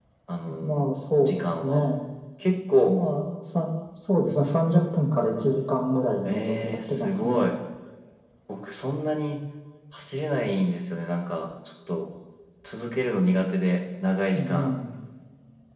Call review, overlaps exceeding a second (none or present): present